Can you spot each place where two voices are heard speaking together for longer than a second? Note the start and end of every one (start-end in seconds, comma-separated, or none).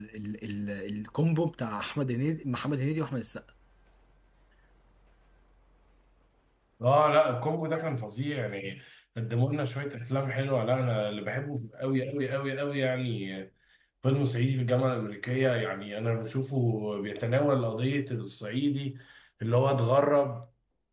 none